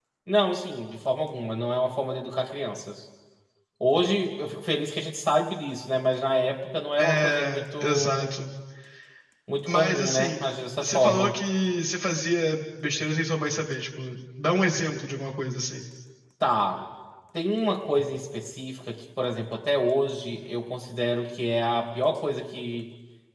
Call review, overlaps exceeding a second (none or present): present